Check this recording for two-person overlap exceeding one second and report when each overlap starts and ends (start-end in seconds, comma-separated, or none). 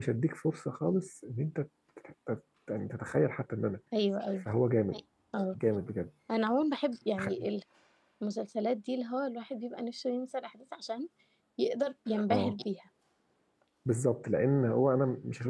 none